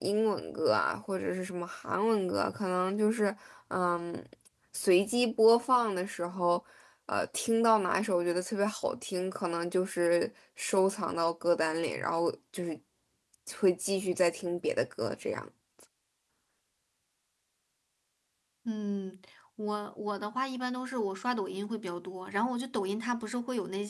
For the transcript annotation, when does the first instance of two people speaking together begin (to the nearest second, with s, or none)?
none